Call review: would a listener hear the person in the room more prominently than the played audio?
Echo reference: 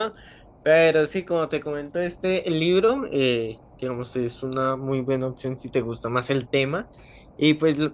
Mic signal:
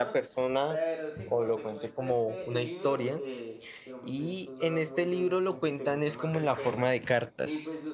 Yes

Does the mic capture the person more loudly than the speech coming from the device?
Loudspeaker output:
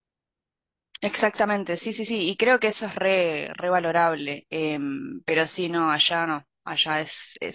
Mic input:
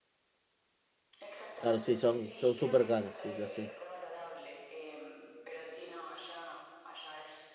Yes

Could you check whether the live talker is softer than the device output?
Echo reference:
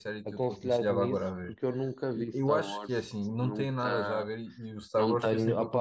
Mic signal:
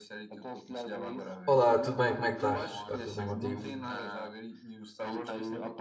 No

